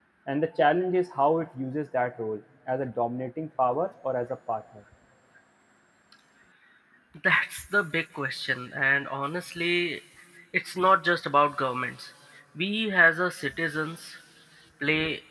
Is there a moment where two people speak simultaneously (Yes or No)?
No